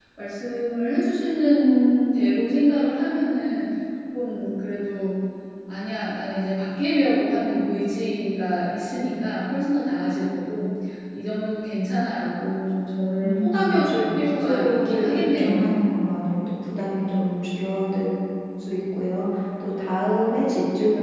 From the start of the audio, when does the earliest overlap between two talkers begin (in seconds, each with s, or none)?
13.2 s